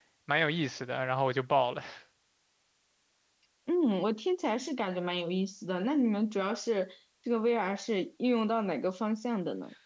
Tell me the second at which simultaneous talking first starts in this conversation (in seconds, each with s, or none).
none